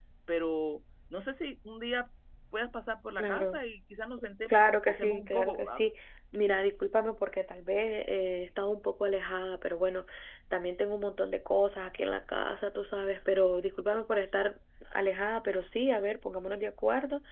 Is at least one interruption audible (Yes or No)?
Yes